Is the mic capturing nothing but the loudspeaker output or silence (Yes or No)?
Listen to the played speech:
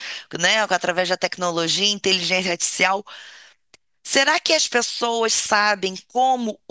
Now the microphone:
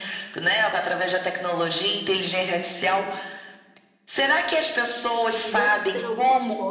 No